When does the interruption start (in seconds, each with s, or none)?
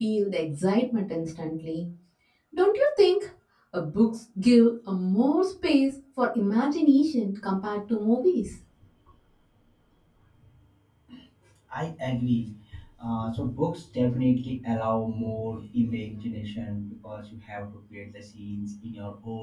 none